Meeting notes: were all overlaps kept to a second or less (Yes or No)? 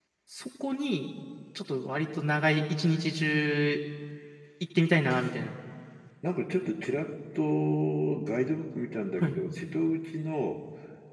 Yes